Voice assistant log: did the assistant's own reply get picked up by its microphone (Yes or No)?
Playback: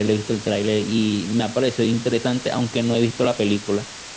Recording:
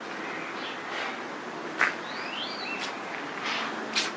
No